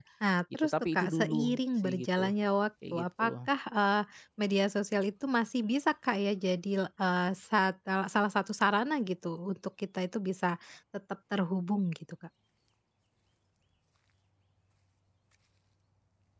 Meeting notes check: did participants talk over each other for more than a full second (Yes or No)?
Yes